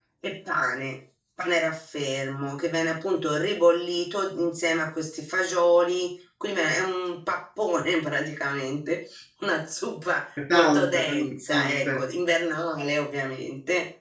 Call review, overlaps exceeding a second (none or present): present